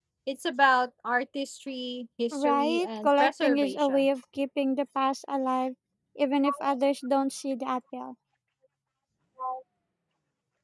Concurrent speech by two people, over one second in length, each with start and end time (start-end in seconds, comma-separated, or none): 2.3-4.0